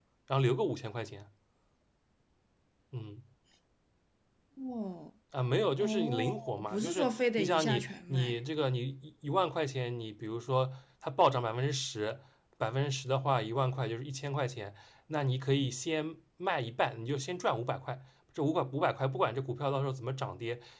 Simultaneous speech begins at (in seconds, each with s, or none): 5.8 s